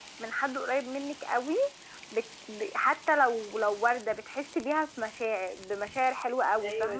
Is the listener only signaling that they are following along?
No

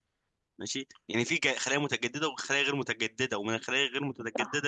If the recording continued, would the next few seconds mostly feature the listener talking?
No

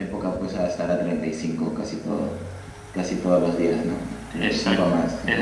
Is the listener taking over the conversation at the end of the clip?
Yes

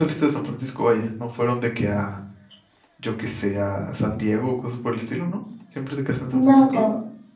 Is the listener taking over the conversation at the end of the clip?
Yes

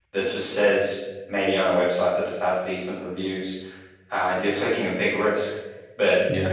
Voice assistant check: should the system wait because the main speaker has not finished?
Yes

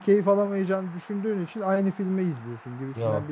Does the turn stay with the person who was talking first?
Yes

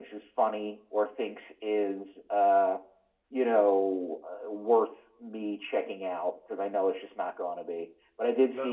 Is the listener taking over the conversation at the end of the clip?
No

